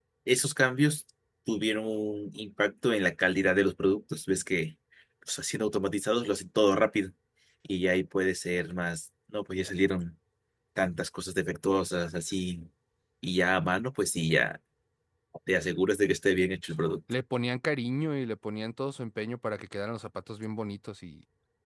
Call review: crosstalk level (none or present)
none